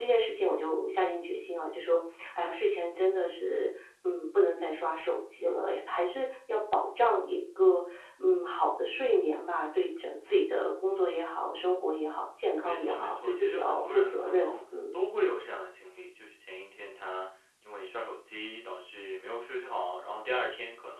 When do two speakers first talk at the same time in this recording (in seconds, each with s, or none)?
12.6 s